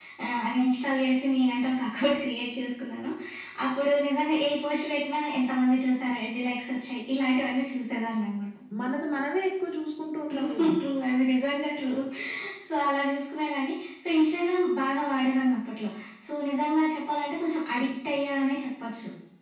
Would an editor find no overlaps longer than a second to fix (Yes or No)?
Yes